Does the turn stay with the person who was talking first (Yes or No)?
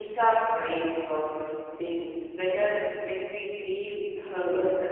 No